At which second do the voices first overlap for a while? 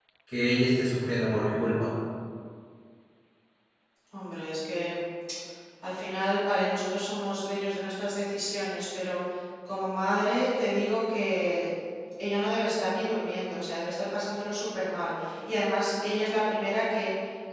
none

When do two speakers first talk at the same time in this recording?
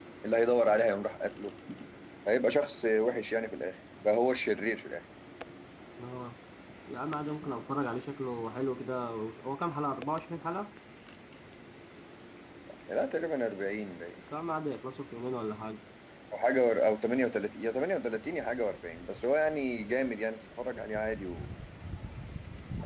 none

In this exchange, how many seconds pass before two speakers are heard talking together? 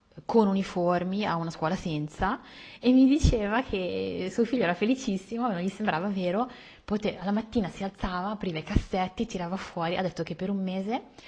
none

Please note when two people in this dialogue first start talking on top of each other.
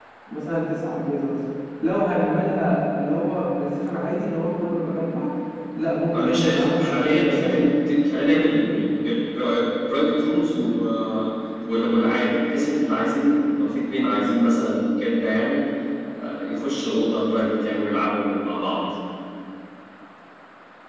6.1 s

